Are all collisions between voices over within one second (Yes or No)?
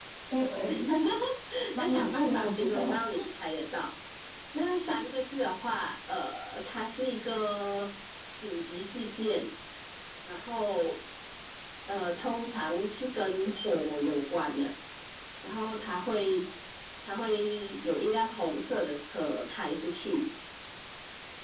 No